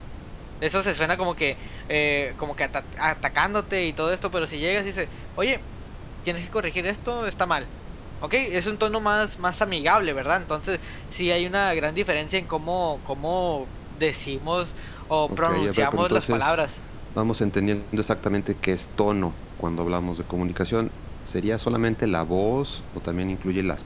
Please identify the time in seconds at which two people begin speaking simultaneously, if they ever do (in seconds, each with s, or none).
15.3 s